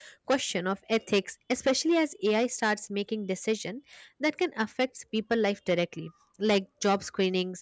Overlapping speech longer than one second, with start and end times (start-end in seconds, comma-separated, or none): none